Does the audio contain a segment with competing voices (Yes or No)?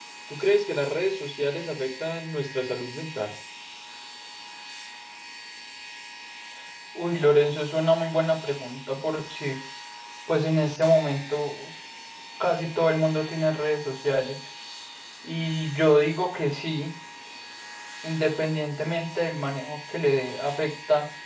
No